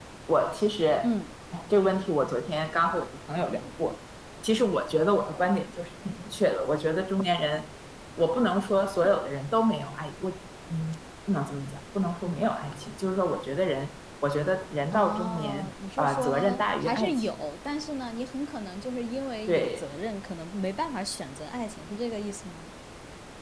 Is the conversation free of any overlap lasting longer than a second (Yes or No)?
No